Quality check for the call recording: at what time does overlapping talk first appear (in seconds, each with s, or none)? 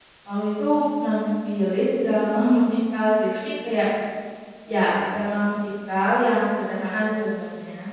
none